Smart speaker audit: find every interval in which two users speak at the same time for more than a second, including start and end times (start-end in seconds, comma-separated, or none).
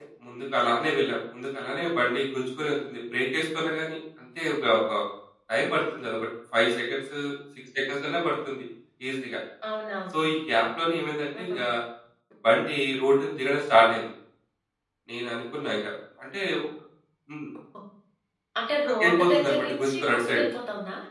19.0-20.4